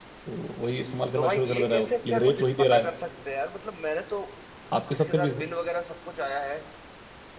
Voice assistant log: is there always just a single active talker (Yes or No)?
No